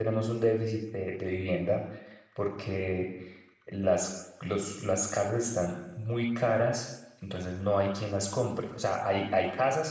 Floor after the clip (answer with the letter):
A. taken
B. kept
B